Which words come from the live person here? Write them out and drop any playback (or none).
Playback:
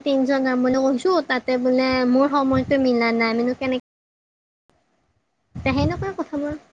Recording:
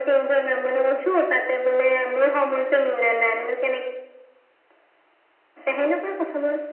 none